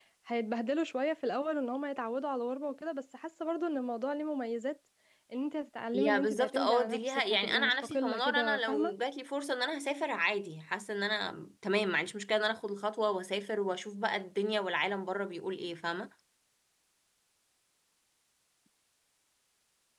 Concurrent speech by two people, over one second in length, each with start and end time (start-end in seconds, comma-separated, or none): 5.9-8.9